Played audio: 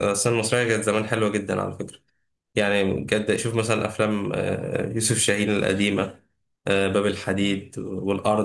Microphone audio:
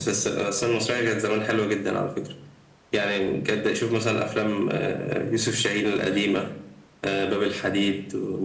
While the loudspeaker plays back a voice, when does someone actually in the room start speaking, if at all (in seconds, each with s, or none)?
none